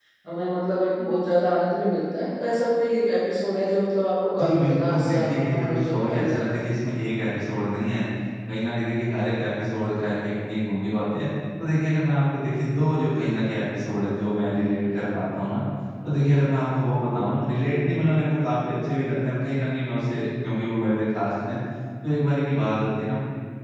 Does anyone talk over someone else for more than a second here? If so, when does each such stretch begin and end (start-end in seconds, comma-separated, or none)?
4.4-6.6